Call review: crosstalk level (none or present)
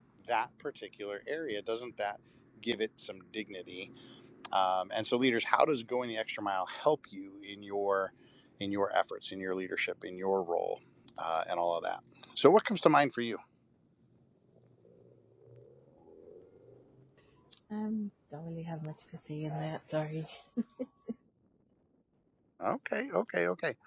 none